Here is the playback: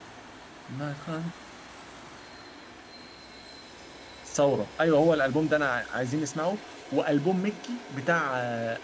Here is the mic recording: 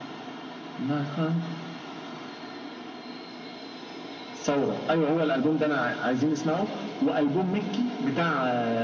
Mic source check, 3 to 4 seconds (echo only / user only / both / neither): neither